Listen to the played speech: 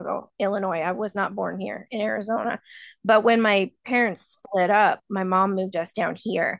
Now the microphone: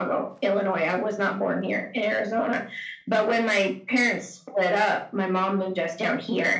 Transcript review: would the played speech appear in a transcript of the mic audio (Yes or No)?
Yes